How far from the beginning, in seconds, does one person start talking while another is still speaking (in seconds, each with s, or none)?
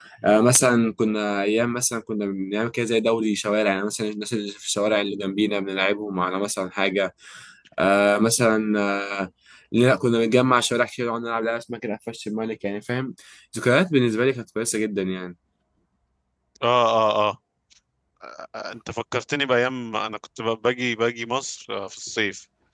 none